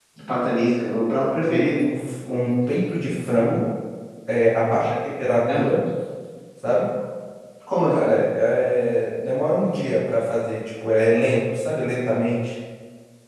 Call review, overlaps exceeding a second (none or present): none